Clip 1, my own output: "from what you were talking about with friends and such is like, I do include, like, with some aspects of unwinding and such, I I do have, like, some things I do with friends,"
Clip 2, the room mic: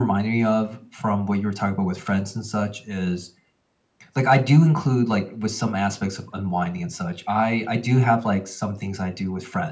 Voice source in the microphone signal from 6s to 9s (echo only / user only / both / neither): echo only